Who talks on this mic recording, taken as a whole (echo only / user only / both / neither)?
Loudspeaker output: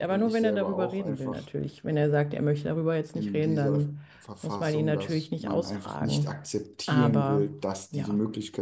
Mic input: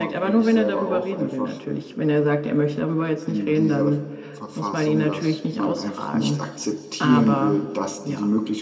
echo only